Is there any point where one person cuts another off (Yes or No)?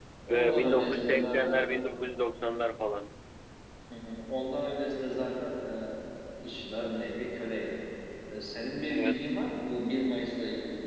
Yes